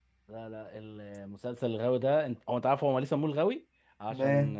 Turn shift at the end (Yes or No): No